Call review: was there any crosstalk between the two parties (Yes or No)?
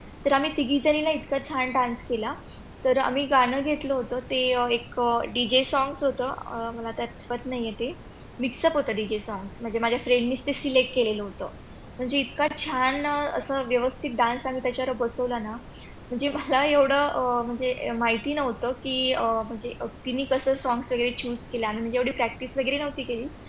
No